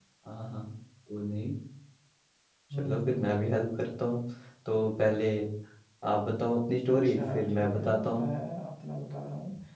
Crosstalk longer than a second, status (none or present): present